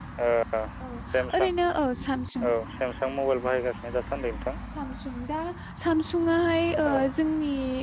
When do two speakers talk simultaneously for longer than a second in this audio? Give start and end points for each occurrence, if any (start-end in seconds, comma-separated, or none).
none